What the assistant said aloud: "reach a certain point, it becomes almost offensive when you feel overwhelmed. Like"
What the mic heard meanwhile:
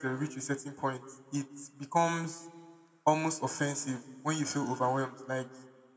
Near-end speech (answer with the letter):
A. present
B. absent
B